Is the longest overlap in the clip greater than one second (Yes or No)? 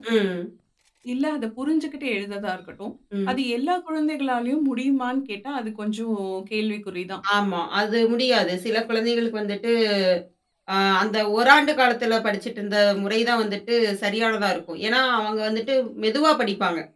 No